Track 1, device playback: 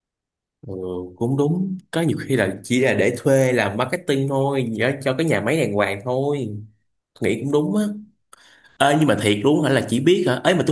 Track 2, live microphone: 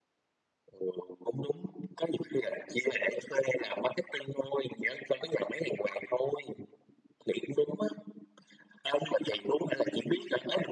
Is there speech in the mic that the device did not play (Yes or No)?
No